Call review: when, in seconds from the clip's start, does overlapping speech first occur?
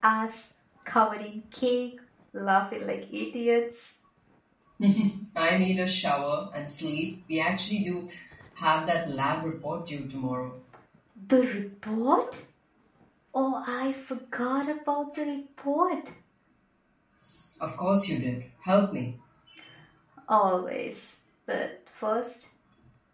none

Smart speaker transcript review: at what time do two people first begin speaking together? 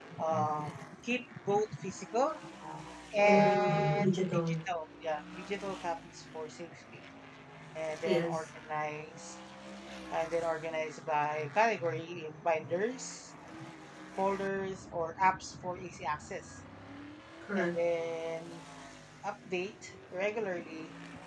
3.2 s

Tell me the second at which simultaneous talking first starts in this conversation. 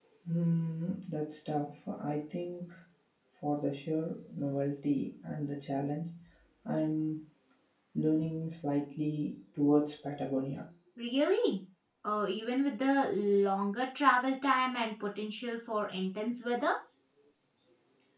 none

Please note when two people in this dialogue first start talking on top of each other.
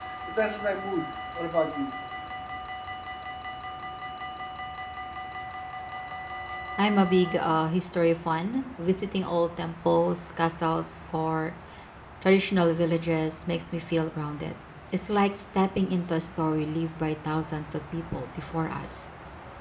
none

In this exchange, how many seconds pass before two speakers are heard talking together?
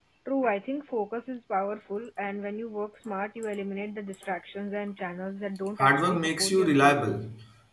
5.8 s

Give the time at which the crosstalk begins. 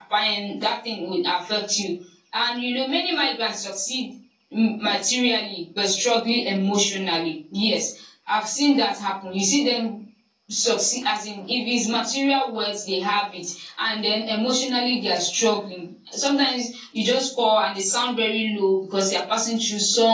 none

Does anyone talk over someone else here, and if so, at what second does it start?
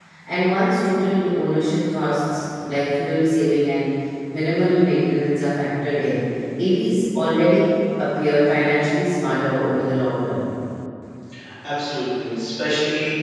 none

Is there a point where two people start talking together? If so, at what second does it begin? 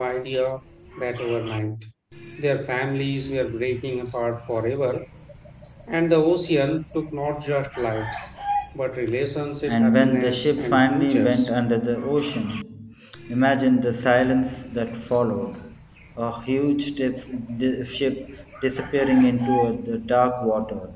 9.7 s

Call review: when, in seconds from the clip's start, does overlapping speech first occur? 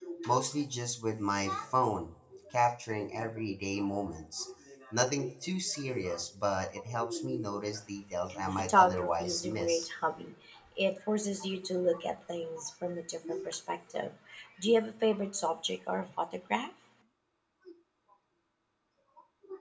8.5 s

